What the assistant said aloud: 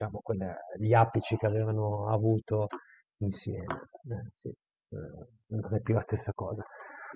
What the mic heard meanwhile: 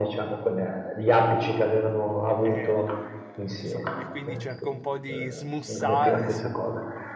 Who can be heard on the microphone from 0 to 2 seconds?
echo only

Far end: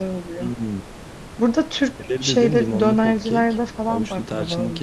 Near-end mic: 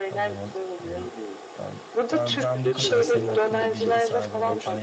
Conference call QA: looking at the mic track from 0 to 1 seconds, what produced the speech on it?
both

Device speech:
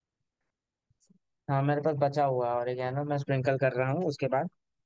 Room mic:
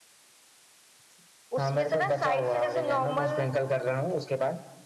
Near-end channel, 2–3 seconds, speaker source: both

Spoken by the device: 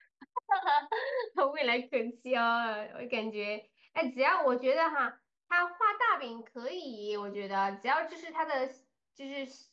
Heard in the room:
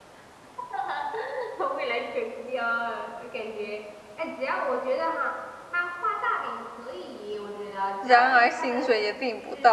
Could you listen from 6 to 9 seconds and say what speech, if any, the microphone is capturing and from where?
both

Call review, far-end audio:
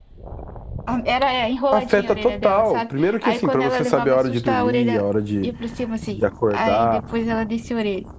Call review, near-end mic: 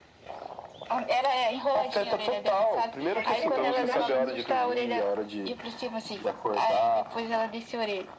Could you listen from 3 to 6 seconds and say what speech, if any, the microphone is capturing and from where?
both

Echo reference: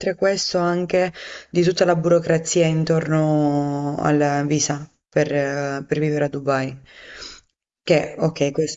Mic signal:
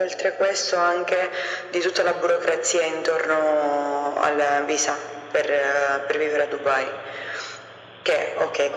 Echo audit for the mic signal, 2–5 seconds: echo only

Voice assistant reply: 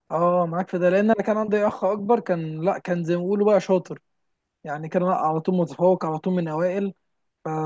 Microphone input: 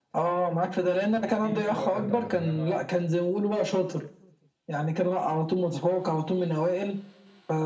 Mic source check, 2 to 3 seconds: both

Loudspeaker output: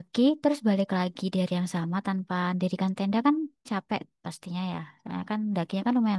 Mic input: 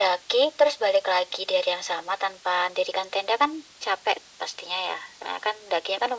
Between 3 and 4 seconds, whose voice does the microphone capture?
echo only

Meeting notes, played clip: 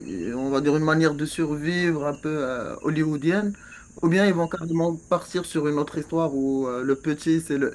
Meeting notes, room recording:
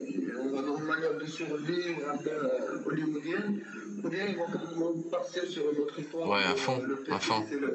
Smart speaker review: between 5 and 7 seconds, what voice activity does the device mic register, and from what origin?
both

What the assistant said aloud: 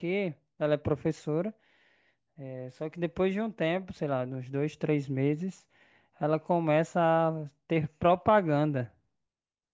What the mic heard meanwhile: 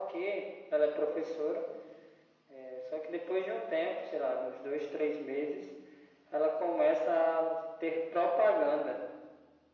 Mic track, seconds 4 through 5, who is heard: echo only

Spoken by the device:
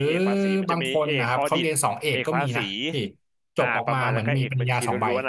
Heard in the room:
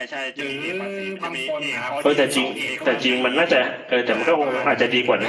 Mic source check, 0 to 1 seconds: echo only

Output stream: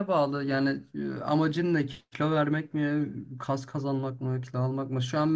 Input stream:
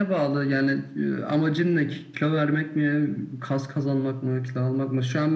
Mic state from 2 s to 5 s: echo only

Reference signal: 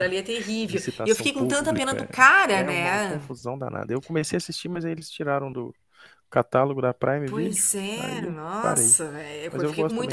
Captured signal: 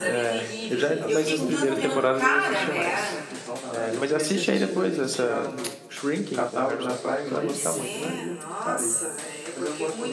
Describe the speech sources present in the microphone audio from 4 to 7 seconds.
both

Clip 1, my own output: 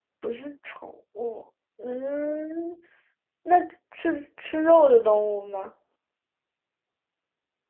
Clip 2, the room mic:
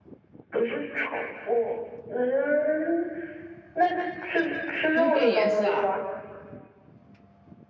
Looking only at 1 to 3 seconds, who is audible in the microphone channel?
echo only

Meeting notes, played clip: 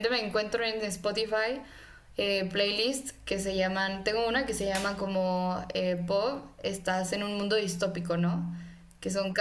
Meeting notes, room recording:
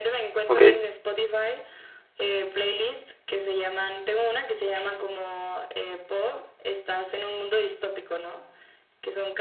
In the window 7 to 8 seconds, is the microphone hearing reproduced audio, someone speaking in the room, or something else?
echo only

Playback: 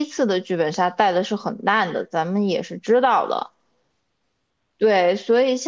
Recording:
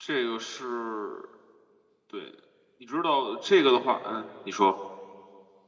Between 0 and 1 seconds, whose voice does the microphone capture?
user only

